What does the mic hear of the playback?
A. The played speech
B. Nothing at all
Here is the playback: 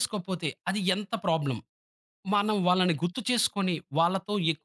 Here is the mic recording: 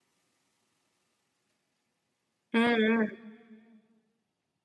B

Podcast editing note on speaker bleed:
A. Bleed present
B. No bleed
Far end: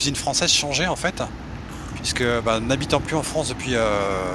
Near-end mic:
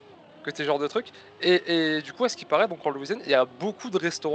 B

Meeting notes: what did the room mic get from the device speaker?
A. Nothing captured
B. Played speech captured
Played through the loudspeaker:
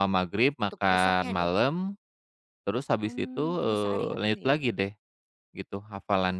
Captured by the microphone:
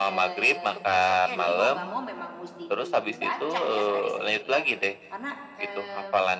B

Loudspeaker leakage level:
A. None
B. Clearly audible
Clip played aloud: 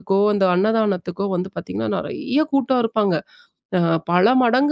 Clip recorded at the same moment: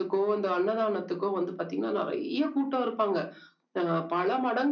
B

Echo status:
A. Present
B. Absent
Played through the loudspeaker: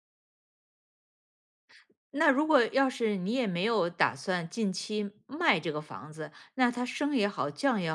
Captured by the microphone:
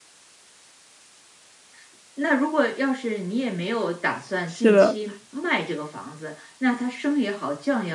A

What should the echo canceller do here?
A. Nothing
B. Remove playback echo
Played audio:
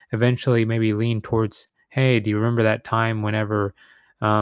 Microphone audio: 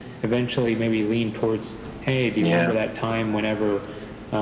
B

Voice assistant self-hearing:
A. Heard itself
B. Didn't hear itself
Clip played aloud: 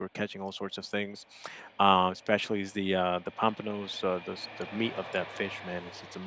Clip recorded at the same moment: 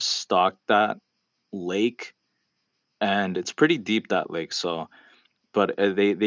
B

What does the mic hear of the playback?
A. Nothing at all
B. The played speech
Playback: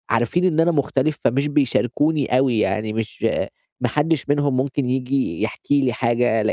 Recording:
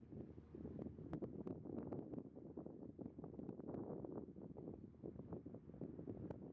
A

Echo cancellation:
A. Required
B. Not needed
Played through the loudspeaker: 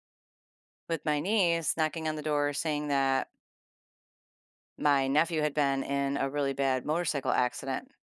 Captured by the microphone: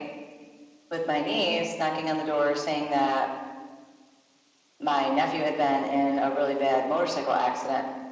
A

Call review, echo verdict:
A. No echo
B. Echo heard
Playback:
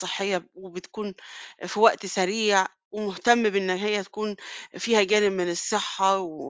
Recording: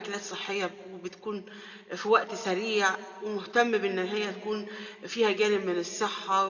B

